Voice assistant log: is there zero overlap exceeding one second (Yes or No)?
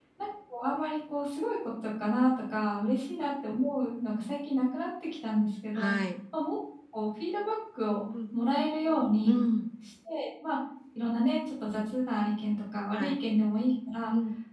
Yes